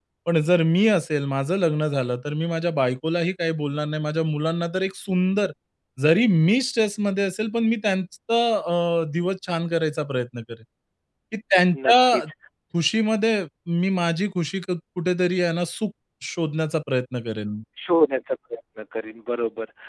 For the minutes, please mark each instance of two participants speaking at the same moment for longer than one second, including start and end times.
none

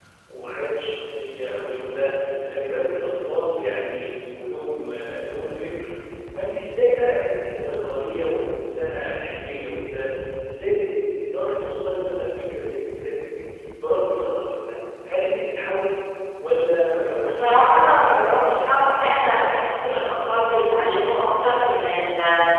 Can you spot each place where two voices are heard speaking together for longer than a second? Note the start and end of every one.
17.2-18.7

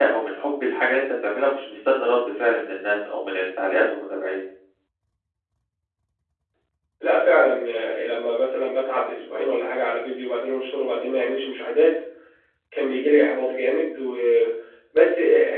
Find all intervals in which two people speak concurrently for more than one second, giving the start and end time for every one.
none

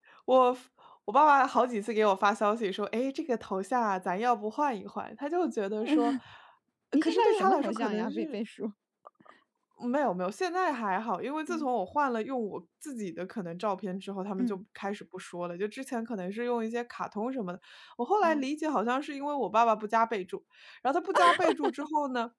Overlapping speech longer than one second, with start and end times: 6.9-8.4

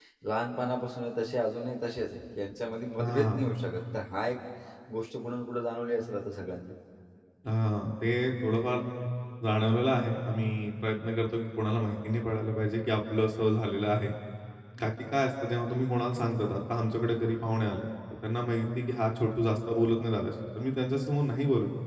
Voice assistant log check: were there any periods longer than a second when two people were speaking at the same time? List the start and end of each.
none

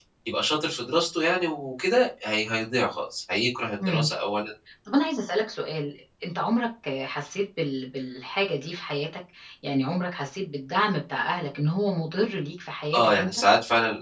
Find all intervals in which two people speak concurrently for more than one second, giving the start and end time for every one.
none

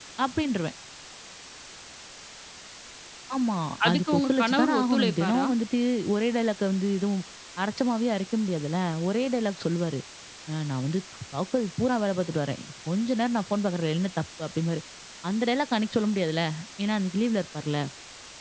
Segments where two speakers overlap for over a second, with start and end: 3.9-5.5

